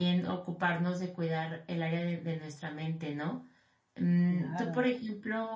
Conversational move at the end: listening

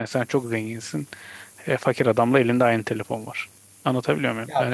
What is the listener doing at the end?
taking over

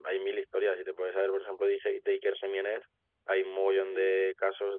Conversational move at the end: listening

